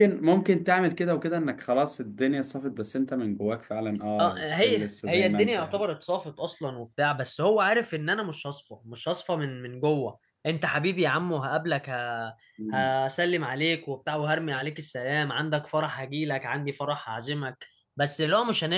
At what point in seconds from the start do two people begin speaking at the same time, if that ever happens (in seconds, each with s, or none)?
4.2 s